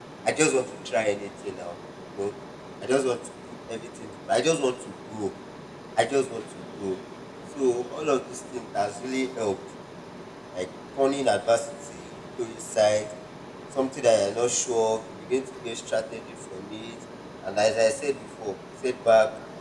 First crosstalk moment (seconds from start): none

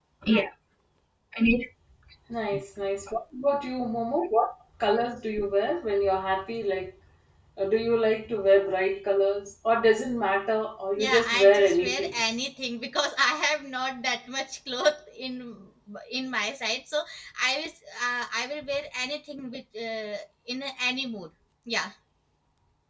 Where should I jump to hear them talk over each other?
10.9 s

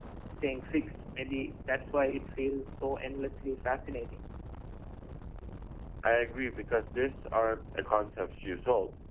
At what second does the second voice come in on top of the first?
none

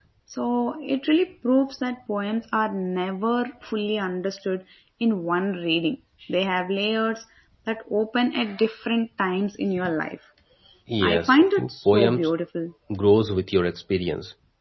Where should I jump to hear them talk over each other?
11.0 s

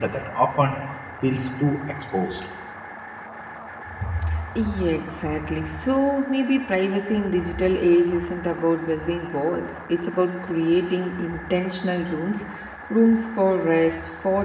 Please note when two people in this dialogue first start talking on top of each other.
none

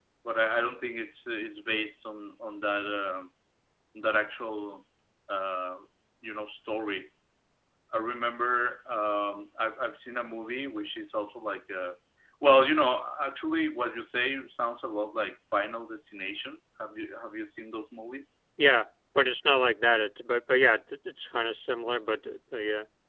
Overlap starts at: none

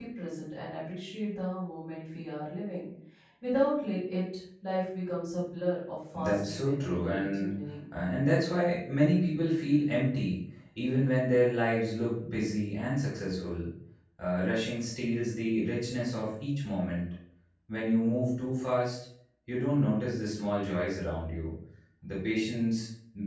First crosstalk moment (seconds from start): 6.1 s

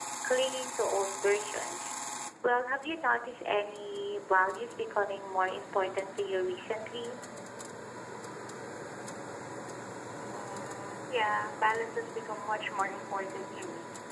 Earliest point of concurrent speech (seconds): none

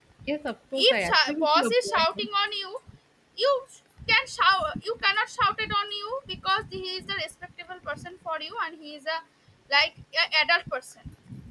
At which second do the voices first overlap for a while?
0.8 s

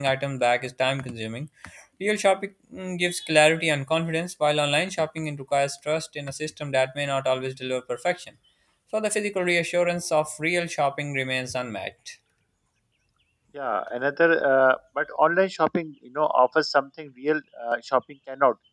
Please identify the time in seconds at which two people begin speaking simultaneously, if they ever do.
none

